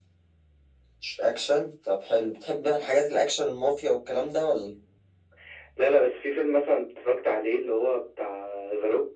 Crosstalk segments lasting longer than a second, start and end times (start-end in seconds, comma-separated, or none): none